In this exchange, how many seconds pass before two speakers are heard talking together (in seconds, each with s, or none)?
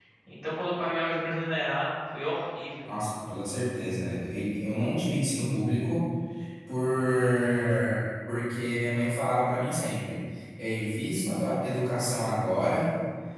none